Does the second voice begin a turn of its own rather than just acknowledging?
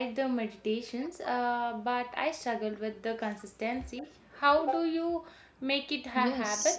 Yes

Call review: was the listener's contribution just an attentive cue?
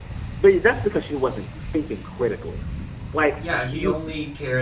No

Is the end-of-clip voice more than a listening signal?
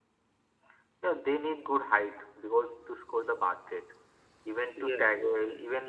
No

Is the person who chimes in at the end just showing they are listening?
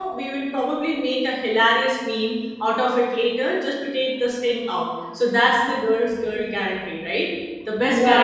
No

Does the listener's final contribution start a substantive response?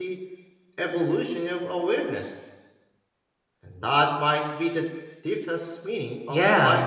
Yes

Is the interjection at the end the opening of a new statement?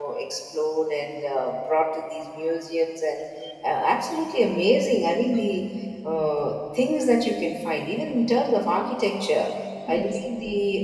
No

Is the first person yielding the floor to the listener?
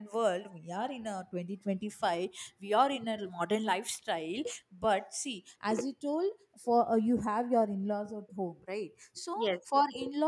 No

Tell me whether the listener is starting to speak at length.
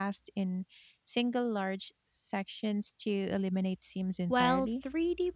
Yes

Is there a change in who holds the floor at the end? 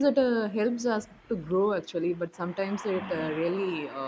No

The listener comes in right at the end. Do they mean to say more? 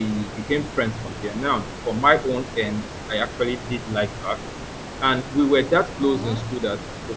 No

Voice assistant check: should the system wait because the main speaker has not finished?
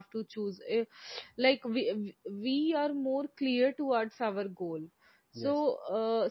Yes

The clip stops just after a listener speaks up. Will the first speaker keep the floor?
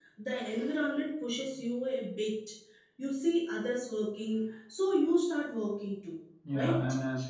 No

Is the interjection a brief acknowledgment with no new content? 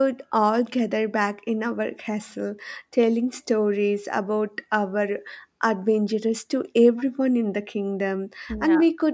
Yes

